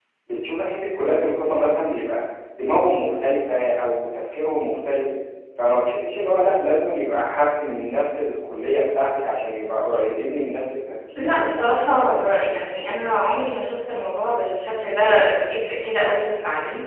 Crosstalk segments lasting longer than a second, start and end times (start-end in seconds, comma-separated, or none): 11.2-12.5